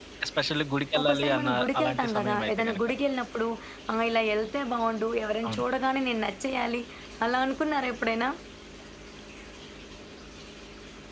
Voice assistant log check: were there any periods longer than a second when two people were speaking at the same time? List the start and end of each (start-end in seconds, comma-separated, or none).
1.0-2.8